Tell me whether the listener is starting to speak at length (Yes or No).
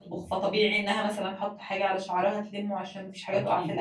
No